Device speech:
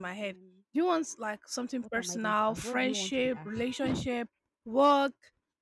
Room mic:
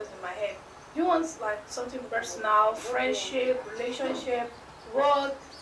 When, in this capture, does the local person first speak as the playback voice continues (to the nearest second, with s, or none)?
none